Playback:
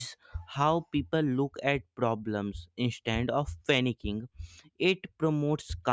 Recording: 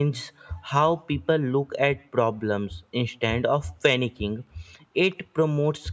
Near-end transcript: none

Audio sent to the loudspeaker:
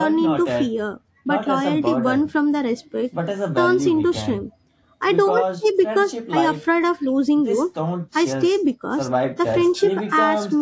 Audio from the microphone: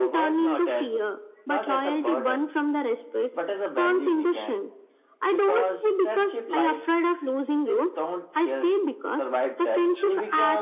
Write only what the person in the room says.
none

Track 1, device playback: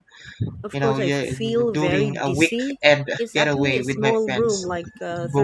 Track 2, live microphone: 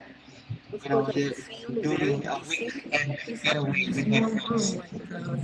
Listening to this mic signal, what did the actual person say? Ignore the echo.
Yeah.

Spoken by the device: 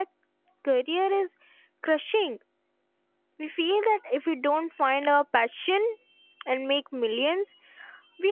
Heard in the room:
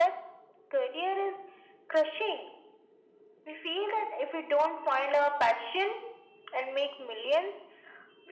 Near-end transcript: none

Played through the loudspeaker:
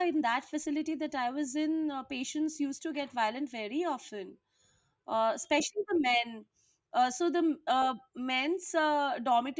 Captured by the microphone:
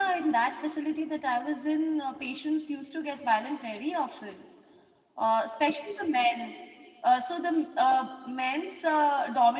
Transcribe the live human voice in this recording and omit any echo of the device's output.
none

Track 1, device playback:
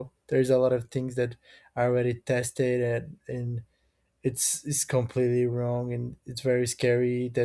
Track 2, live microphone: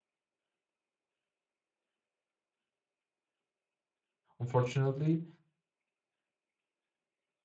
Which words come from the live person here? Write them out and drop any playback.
Unfortunately,

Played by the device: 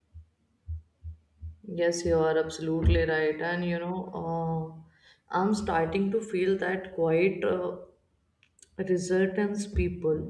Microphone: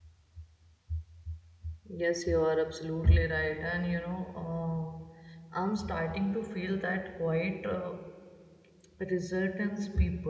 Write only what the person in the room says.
none

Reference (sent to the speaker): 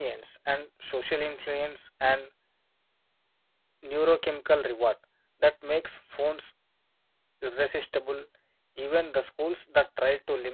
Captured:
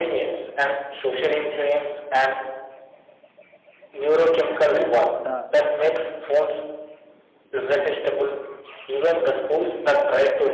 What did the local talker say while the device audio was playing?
And the

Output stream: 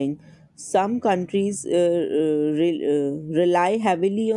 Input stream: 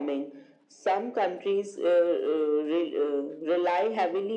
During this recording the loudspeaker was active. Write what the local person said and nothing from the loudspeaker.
none

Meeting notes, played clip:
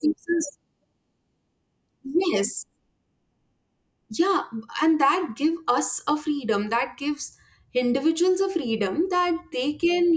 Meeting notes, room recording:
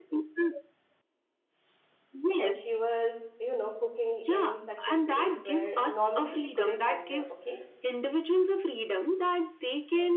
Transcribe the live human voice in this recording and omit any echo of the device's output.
and she was you know cooking in such a place where normally she couldn't enter okay

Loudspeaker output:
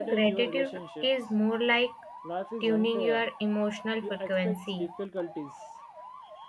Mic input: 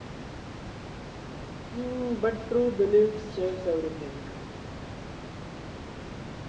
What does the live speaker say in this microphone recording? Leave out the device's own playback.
Hmm, but true beliefs shapes everything.

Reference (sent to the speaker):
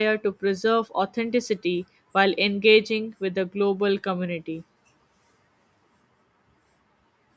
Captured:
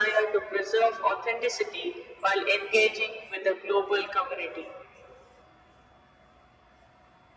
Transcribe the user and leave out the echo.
none

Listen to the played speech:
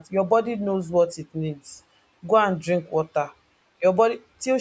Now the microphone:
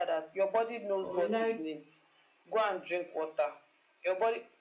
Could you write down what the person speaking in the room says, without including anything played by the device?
But we like,

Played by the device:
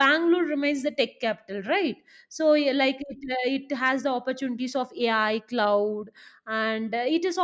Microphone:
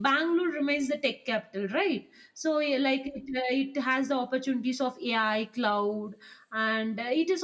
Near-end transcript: none

